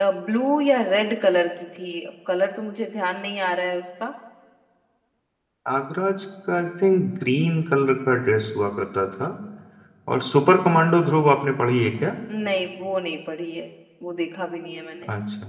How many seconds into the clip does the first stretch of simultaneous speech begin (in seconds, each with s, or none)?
none